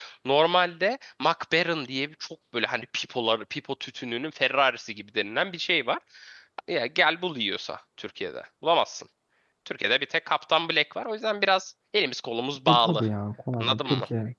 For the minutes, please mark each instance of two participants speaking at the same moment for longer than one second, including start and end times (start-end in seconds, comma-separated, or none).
none